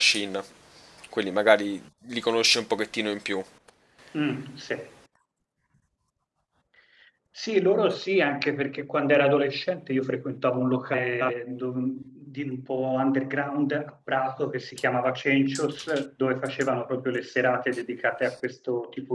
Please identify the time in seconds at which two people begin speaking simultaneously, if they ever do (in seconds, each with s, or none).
none